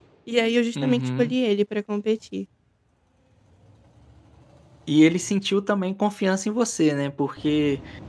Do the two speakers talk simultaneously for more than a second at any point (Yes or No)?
No